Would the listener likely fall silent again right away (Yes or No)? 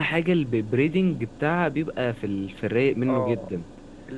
No